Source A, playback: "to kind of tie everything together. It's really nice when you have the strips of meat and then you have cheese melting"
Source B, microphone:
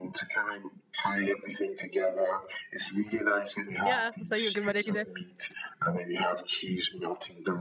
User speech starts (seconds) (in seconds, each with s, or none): 3.8 s